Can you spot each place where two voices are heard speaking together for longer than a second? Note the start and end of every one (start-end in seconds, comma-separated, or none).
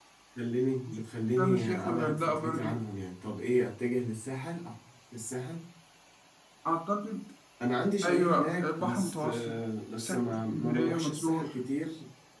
1.4-2.8, 8.0-9.6, 10.0-11.5